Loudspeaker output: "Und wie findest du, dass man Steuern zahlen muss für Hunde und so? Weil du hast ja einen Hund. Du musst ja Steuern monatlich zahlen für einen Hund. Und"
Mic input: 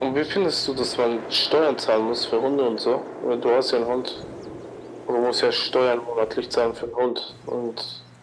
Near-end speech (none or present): none